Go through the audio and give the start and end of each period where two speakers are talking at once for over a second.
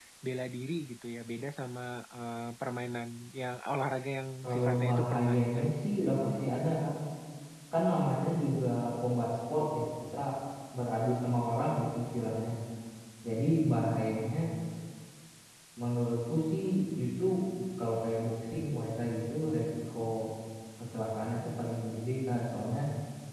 4.4-5.7

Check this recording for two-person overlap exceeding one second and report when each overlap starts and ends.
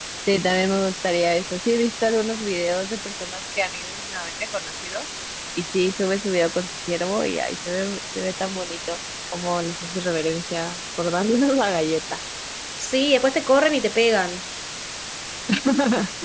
none

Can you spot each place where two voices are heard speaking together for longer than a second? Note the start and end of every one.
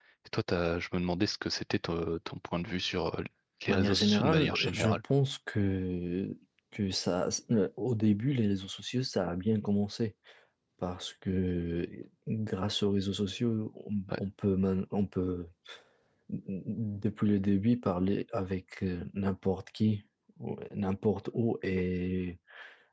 3.7-5.0

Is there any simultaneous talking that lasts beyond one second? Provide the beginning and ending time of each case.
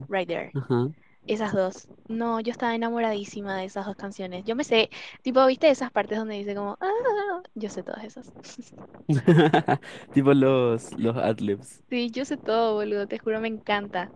none

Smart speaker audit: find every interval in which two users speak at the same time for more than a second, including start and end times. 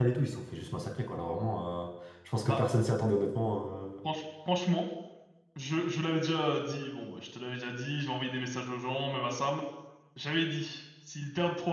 none

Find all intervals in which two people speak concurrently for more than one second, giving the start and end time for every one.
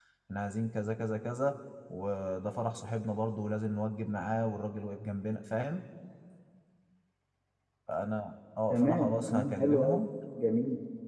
8.7-10.0

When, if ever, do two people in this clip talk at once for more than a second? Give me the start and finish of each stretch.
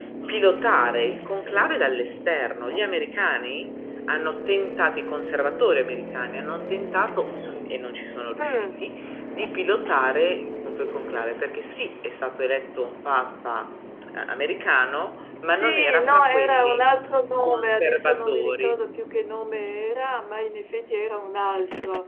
15.5-16.9, 17.4-18.8

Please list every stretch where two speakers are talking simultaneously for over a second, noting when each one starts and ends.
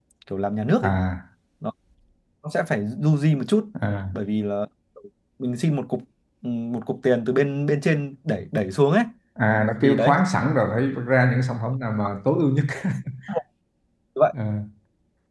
none

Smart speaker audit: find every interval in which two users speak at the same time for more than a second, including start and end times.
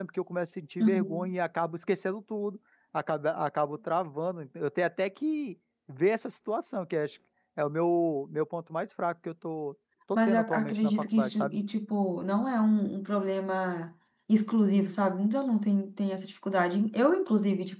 10.2-11.6

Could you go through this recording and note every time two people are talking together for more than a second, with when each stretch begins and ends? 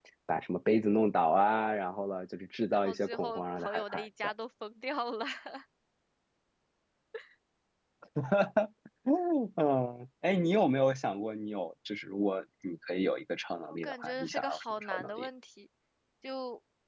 2.7-4.3, 13.7-15.3

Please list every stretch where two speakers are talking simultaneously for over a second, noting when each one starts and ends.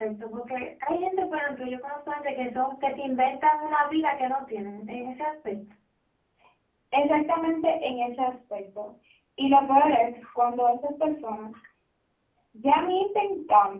none

